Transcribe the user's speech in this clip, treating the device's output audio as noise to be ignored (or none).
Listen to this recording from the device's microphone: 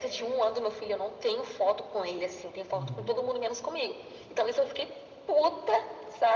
Uhum.